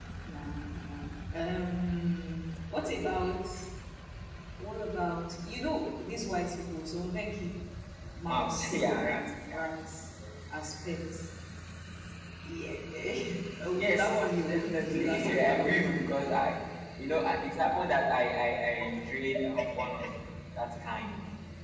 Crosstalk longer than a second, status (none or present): present